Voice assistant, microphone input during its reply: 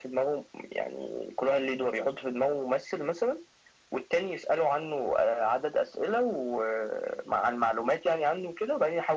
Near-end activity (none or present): none